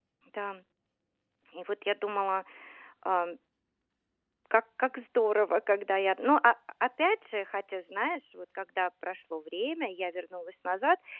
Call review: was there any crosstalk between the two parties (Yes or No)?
No